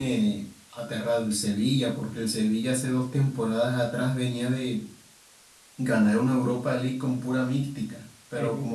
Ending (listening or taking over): listening